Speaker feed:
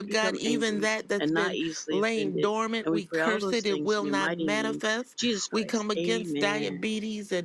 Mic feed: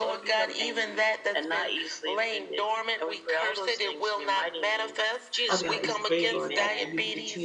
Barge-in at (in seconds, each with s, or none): 5.5 s